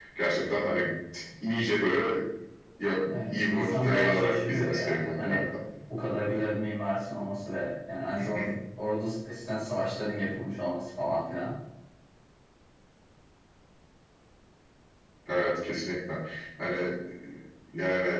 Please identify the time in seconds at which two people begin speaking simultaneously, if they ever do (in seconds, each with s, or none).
3.1 s